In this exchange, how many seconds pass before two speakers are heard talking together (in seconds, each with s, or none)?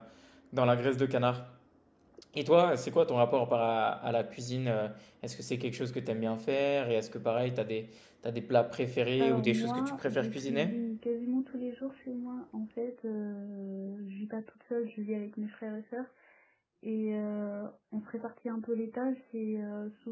9.2 s